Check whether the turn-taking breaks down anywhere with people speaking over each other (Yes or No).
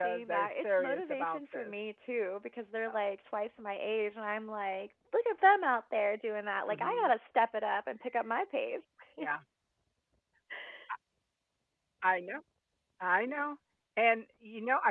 Yes